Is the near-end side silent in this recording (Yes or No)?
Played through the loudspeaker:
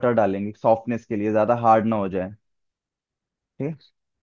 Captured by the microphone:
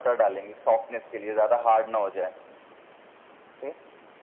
Yes